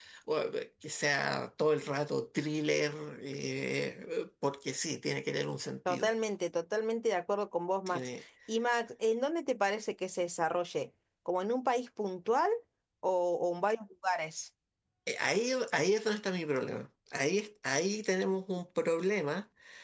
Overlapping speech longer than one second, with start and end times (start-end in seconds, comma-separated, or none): none